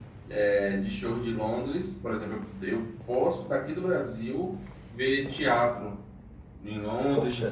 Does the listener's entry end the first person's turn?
No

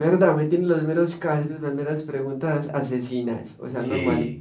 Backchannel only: No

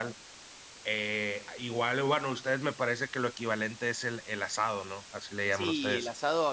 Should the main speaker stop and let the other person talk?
Yes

